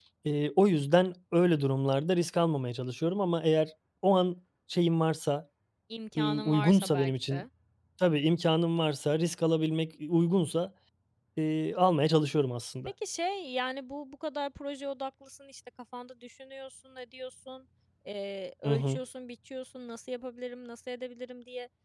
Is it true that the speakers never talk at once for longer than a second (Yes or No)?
No